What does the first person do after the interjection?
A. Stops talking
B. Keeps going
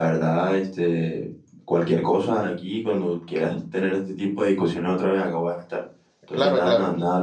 B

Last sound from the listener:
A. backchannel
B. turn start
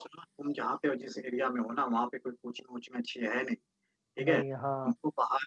A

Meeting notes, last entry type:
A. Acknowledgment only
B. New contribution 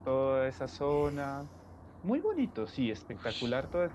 B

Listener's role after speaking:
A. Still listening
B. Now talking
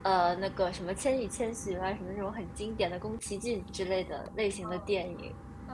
B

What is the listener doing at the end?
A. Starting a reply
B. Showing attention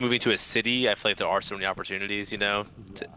B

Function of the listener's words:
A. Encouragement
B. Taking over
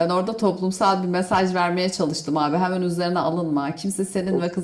A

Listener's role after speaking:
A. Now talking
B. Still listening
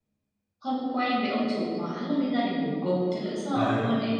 A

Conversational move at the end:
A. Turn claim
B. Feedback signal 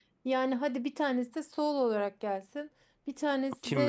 B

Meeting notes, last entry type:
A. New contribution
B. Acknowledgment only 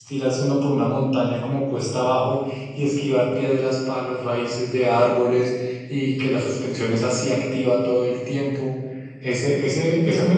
B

